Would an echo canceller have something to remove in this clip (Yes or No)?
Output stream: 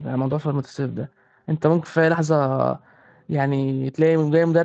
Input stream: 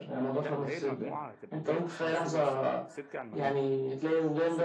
Yes